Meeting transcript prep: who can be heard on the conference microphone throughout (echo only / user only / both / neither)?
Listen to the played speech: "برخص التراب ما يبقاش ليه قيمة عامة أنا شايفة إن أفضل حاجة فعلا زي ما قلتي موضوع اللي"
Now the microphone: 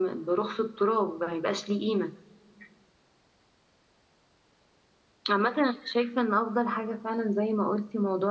echo only